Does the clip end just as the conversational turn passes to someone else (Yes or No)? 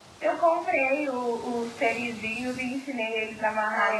No